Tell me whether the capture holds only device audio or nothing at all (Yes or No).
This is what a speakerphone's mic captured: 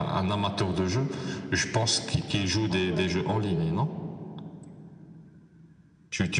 No